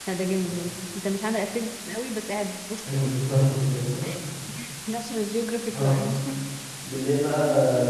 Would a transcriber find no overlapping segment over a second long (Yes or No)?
Yes